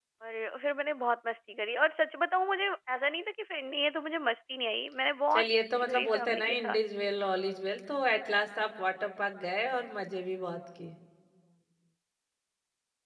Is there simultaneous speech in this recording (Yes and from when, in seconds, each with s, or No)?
Yes, from 5.3 s